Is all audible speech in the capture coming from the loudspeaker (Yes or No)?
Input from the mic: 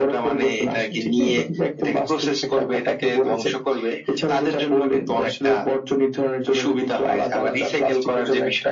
Yes